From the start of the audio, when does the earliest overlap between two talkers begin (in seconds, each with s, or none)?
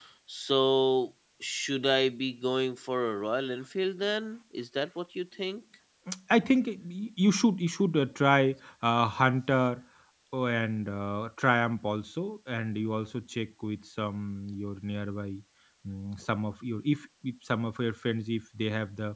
none